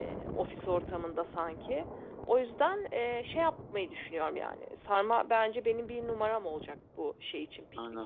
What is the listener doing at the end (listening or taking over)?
taking over